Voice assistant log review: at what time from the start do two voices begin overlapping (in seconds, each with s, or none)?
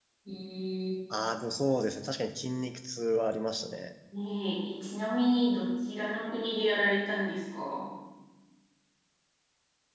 none